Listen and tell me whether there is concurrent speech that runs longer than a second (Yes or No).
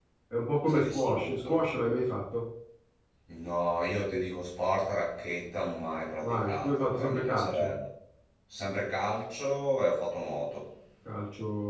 Yes